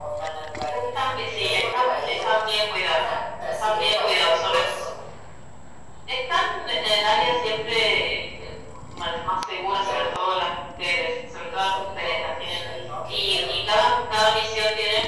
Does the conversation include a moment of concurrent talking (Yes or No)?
Yes